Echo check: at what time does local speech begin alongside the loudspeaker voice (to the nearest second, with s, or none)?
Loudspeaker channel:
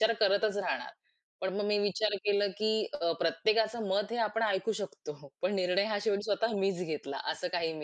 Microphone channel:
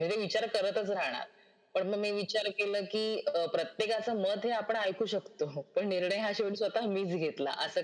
none